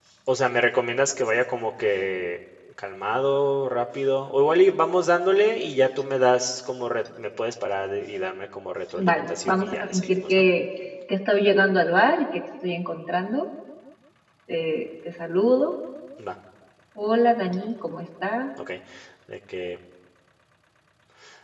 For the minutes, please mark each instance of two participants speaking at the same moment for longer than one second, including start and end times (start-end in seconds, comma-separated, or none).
9.1-10.4